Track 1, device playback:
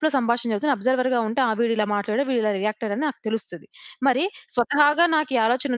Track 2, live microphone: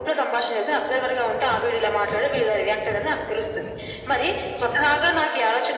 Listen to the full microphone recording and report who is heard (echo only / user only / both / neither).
echo only